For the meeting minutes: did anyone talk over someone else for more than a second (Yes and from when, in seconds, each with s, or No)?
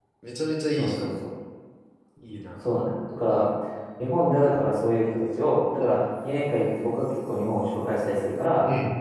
No